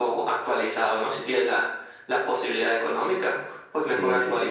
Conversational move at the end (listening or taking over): listening